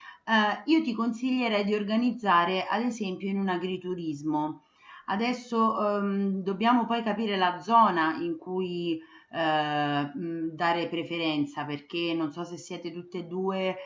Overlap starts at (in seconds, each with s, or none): none